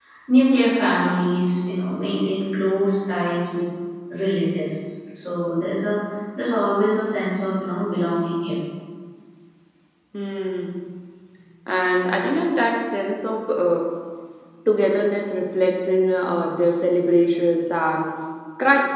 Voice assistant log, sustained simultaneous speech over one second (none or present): none